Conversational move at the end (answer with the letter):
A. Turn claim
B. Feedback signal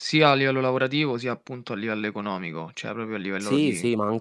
A